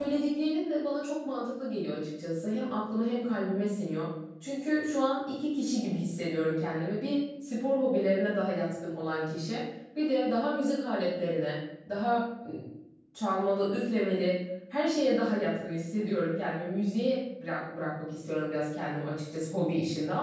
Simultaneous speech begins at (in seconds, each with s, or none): none